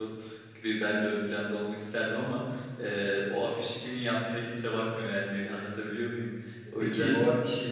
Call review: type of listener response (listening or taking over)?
taking over